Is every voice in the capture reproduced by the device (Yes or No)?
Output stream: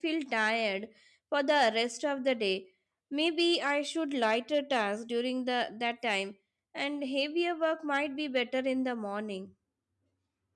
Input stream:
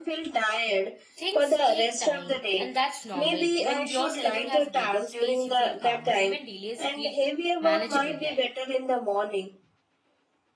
No